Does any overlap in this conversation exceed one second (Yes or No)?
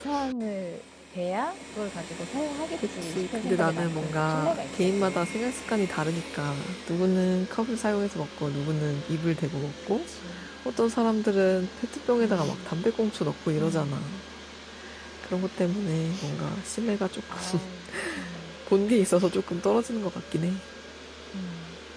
Yes